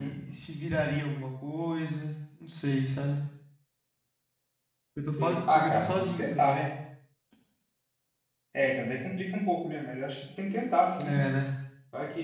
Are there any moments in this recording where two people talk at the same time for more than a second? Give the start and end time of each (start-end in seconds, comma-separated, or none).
5.2-6.6